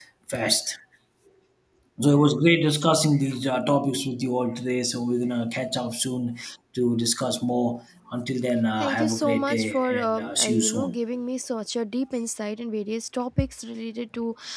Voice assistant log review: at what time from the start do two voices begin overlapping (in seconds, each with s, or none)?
8.8 s